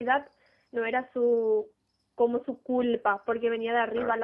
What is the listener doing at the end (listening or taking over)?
listening